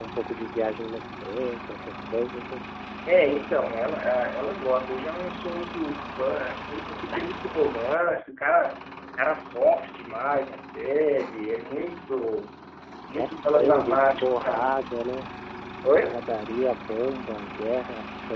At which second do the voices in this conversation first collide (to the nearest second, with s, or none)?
13 s